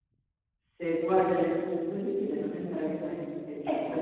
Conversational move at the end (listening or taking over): listening